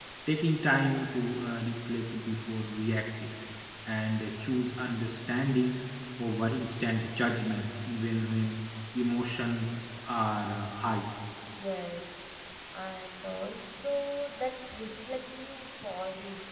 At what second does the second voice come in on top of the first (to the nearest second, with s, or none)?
none